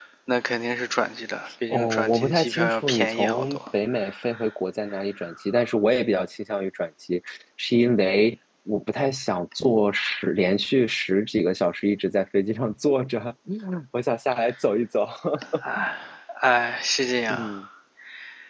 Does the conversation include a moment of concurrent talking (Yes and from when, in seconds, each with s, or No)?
Yes, from 1.7 s